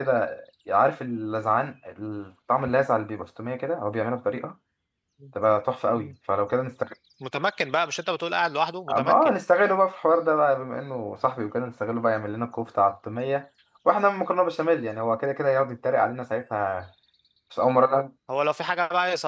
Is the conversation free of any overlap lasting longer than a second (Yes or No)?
Yes